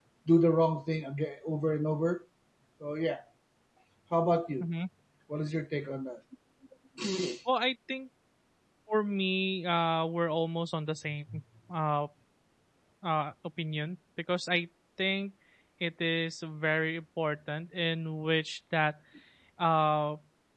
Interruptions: none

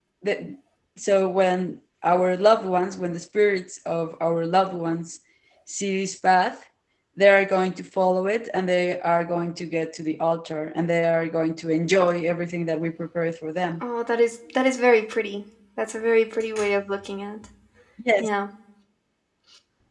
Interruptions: none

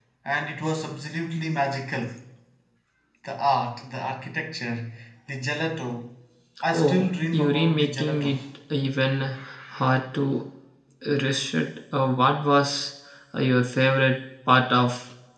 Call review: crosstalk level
present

